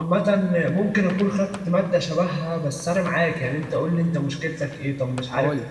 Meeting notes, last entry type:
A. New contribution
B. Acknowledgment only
B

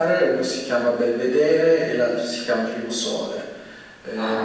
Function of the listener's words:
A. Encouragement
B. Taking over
B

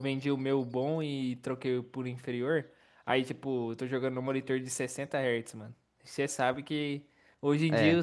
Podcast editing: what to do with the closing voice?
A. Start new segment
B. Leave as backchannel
B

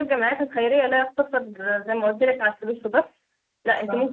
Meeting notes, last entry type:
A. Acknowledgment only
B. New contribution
A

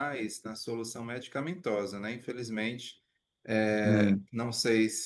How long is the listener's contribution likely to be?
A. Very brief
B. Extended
A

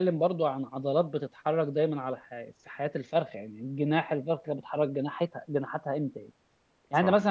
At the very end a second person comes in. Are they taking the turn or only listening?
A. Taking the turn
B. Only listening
B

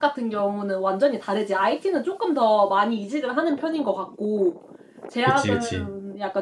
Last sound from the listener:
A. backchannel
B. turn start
A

